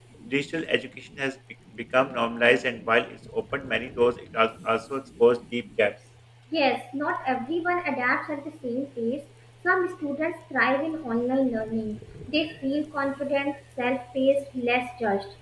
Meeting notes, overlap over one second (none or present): none